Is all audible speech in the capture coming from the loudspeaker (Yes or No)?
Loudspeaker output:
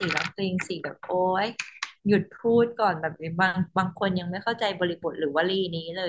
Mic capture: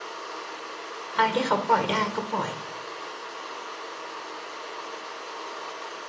No